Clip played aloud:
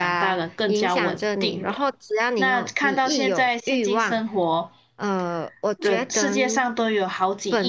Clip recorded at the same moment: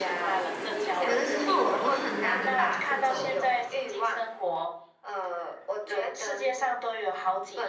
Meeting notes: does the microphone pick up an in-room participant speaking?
Yes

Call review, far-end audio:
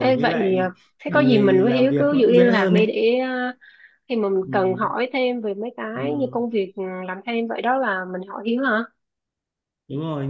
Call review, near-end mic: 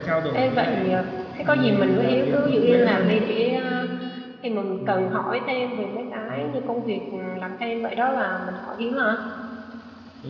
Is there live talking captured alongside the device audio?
No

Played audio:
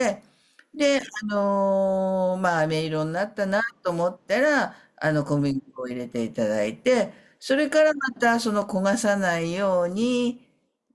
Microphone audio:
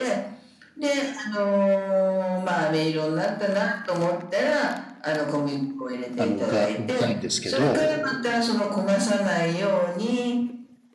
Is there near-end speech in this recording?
Yes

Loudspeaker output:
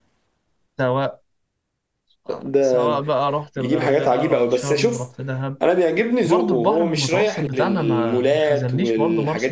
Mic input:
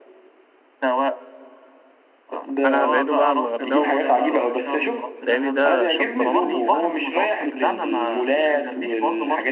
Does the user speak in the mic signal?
Yes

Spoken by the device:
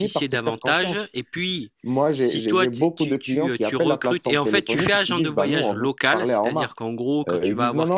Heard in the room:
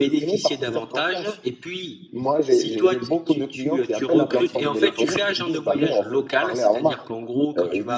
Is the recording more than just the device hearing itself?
Yes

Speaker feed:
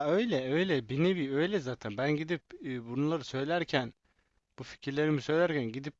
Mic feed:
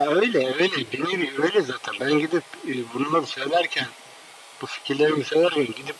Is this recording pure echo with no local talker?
Yes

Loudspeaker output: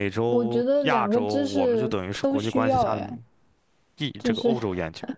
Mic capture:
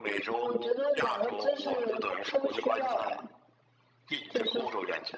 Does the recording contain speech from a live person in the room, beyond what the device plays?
No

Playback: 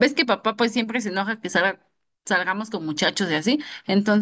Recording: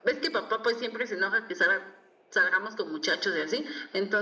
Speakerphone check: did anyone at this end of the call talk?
No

